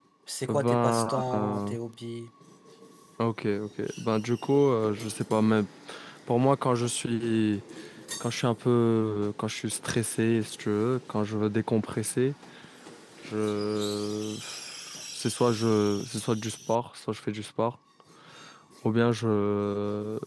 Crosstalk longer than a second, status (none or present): present